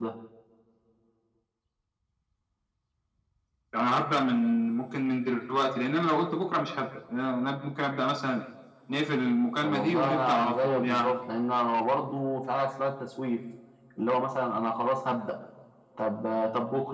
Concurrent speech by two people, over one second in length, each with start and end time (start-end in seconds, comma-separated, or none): 9.6-11.1